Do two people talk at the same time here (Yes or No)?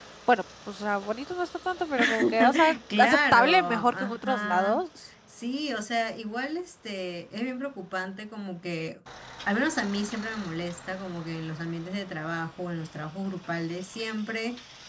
Yes